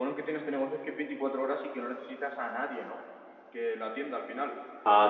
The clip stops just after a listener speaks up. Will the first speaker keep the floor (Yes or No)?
Yes